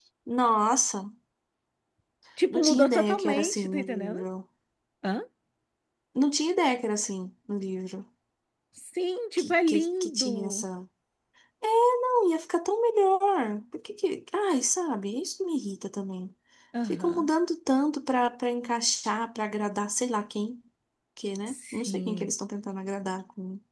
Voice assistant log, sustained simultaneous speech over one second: present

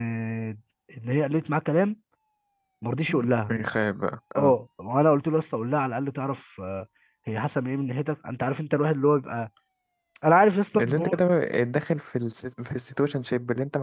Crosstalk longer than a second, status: none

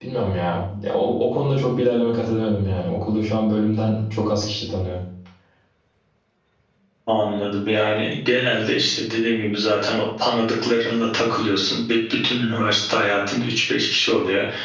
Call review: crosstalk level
none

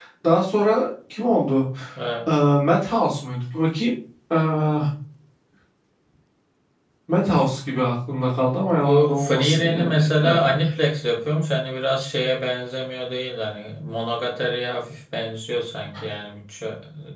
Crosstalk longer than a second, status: present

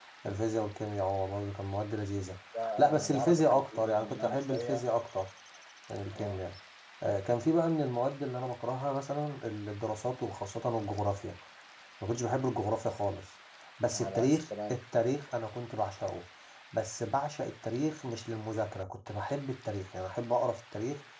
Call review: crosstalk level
present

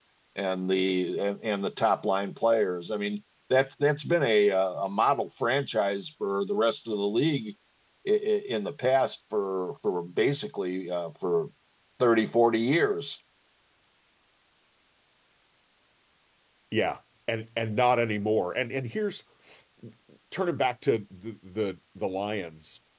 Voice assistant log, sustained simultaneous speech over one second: none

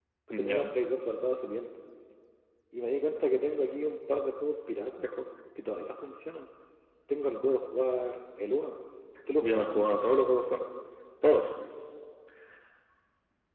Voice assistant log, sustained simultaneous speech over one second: none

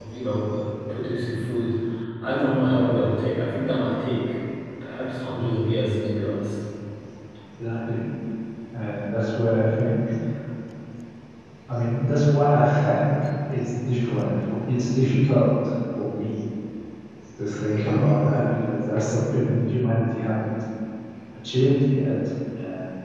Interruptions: none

